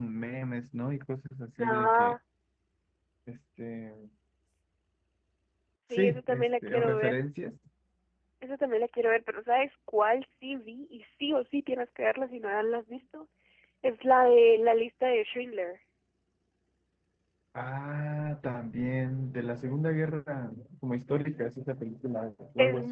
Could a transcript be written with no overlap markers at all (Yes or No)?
No